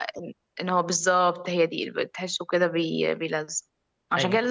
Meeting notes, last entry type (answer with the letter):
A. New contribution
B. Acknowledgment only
B